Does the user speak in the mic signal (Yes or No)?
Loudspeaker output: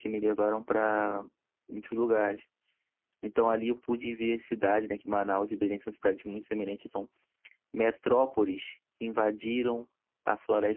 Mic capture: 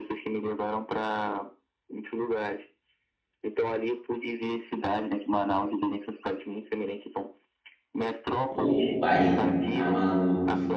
Yes